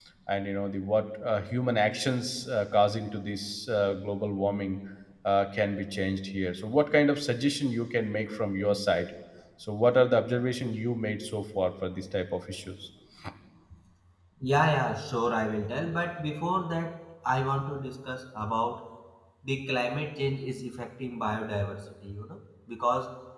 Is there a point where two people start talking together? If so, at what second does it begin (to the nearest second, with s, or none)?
none